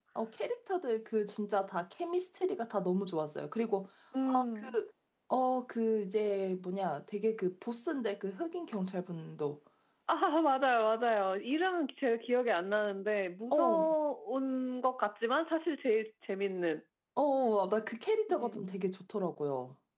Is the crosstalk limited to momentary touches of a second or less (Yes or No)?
Yes